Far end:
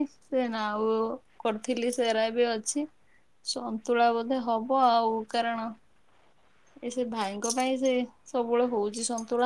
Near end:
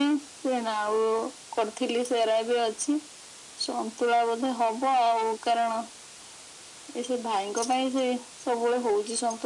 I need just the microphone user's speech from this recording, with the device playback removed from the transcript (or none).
none